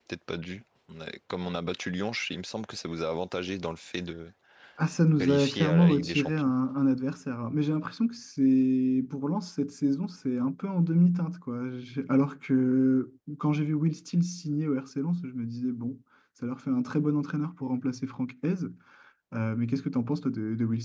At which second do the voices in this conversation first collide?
5.2 s

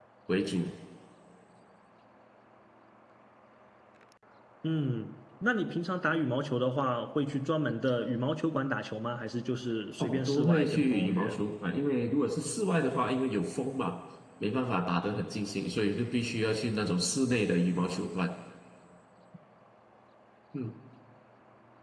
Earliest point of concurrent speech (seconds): 10.0 s

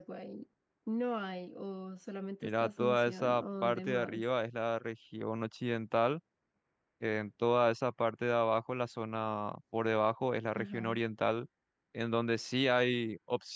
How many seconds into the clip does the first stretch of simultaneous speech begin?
2.4 s

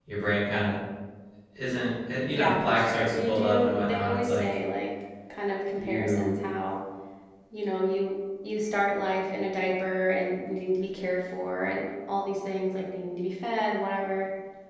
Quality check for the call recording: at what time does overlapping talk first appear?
2.3 s

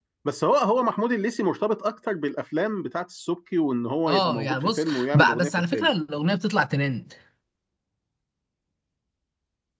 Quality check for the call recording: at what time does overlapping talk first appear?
4.1 s

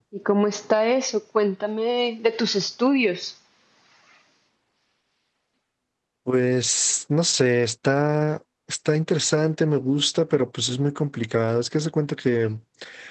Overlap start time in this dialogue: none

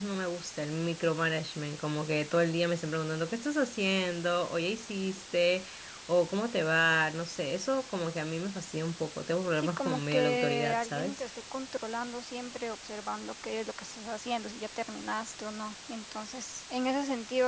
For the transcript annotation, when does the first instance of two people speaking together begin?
9.6 s

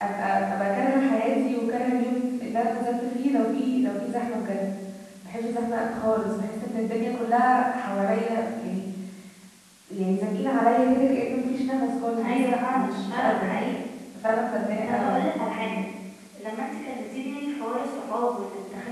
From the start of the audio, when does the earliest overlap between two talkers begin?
12.2 s

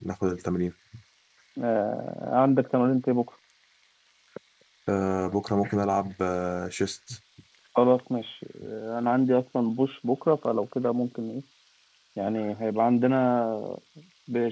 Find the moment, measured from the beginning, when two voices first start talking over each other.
none

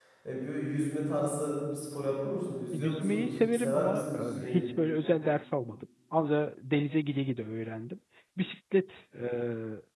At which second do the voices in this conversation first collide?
2.7 s

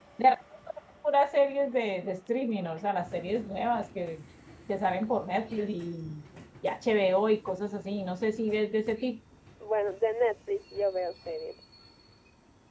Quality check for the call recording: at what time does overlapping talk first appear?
none

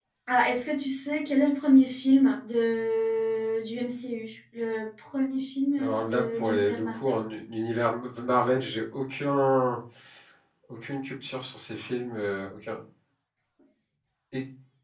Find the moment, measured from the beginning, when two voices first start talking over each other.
5.8 s

